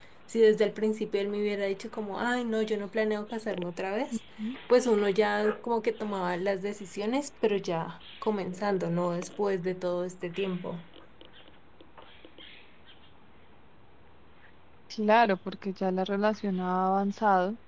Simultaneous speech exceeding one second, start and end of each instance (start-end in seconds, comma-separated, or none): none